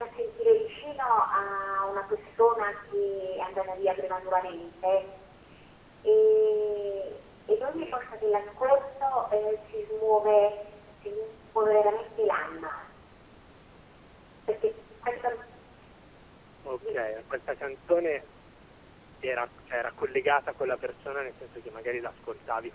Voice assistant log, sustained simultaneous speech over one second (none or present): none